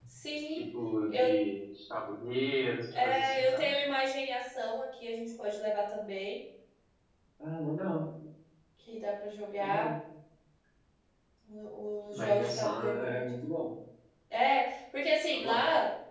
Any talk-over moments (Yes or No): Yes